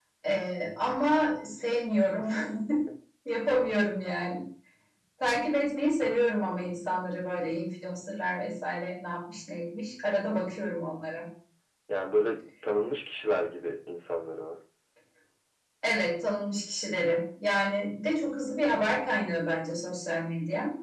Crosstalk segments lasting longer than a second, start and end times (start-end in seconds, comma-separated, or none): none